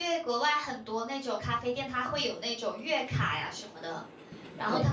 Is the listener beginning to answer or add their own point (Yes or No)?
No